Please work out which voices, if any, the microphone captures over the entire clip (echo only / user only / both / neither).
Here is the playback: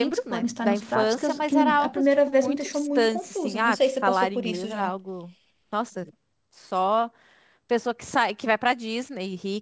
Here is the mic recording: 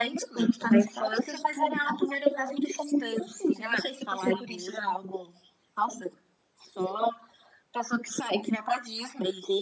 echo only